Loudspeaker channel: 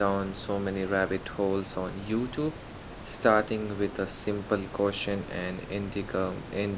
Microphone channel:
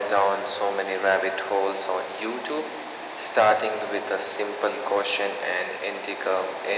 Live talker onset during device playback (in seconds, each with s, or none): none